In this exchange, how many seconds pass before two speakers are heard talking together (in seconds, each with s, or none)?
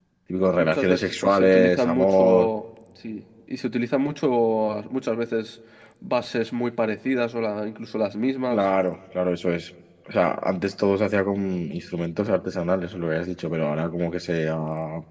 0.5 s